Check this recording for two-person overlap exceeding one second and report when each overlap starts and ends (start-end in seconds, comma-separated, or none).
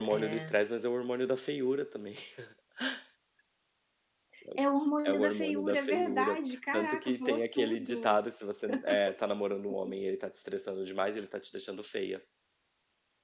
5.0-8.2